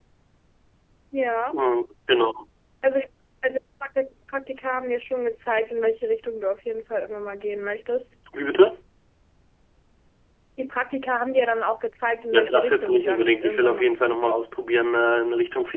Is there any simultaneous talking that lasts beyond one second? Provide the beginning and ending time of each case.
12.3-13.8

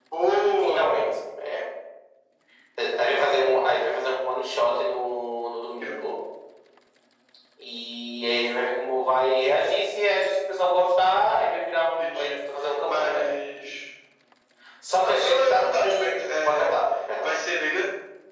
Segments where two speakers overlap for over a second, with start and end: 15.0-16.7

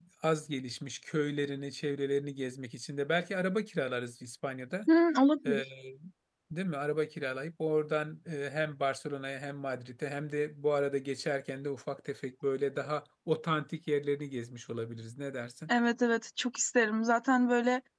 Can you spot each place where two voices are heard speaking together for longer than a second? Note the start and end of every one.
none

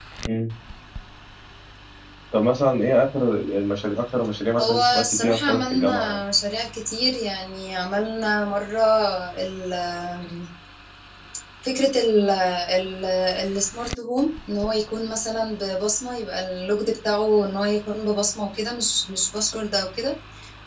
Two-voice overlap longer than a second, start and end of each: 4.6-6.2

